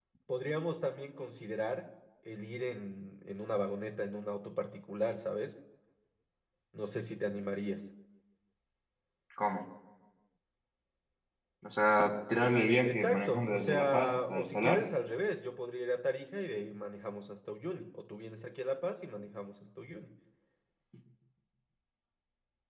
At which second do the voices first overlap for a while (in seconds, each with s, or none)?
12.8 s